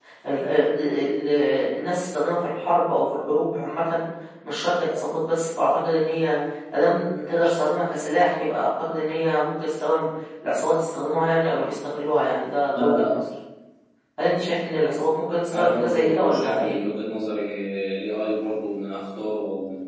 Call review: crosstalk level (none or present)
present